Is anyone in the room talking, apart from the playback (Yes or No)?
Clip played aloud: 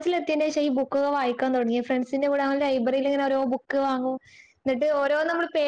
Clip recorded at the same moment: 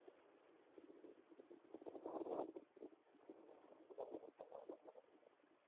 No